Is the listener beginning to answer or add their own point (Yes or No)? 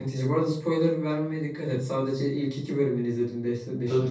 Yes